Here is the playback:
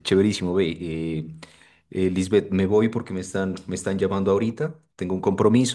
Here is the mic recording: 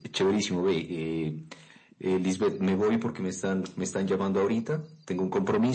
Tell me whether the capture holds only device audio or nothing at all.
Yes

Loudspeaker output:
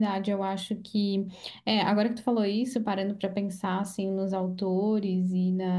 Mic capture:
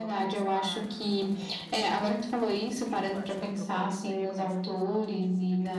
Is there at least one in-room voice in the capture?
Yes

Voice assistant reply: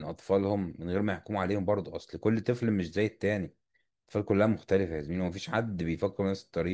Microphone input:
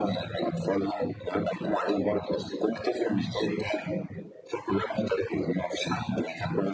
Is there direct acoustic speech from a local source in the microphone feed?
No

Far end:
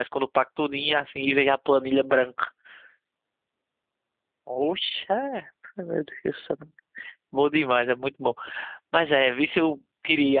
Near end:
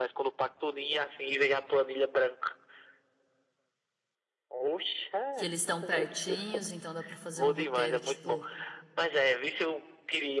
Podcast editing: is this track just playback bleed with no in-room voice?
No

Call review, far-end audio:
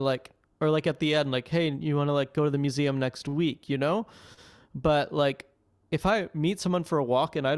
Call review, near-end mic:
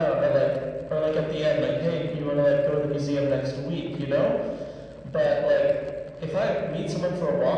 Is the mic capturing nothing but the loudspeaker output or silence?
Yes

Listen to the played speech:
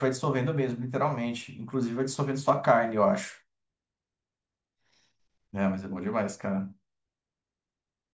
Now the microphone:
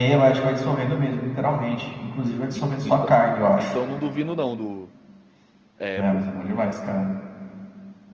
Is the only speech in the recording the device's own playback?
No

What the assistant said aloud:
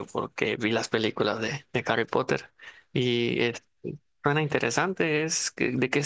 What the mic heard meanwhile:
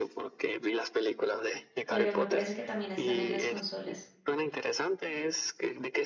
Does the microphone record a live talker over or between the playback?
Yes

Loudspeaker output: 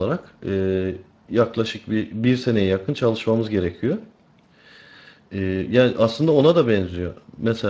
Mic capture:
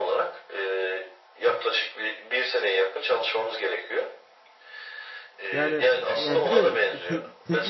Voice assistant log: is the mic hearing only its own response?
No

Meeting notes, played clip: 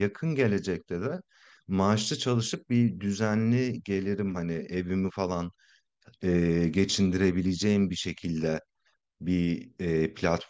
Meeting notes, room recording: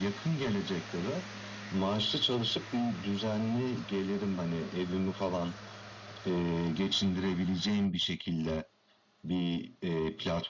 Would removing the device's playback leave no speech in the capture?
Yes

